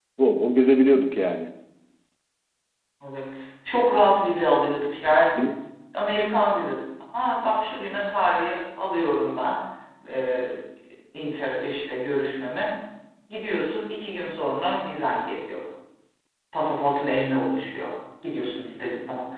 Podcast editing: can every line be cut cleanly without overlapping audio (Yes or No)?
Yes